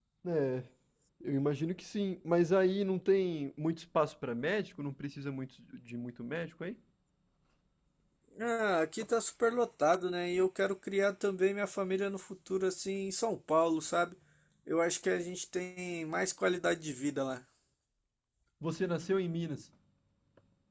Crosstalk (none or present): none